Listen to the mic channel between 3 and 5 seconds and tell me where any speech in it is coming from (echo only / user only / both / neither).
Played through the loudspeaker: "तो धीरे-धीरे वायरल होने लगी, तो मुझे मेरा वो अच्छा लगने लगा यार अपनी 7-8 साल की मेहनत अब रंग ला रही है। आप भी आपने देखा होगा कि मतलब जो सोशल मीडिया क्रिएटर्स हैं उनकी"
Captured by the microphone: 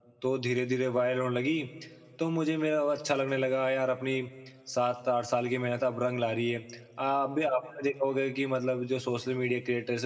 echo only